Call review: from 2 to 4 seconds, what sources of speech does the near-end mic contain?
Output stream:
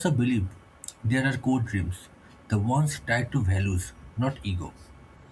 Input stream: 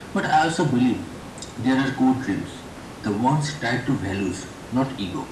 echo only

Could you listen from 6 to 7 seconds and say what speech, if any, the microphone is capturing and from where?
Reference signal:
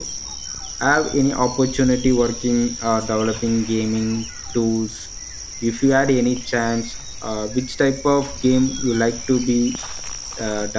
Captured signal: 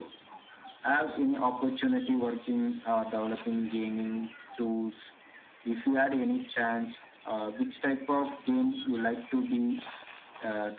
echo only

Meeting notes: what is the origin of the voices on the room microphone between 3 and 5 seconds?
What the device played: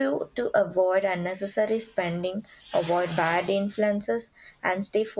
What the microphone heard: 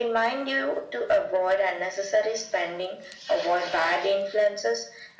echo only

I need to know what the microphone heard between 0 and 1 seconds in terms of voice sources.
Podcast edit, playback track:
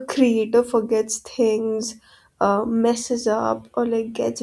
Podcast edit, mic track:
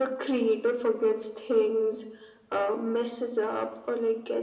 echo only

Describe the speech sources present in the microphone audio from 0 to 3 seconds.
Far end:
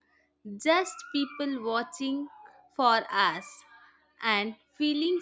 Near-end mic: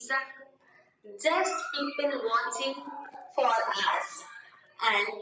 echo only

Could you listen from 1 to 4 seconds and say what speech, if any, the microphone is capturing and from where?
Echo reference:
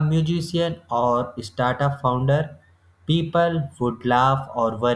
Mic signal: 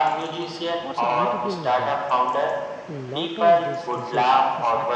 both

